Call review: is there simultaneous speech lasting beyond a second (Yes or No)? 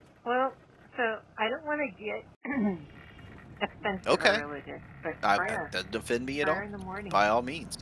No